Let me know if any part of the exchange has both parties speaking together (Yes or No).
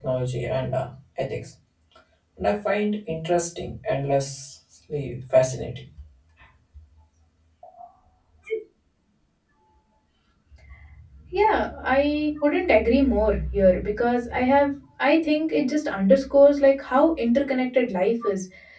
No